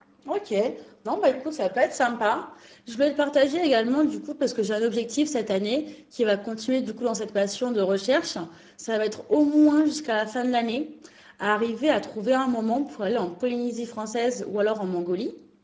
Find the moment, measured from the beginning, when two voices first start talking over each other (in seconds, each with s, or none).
none